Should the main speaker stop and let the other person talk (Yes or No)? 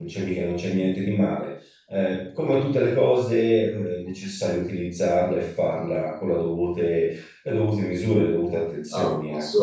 Yes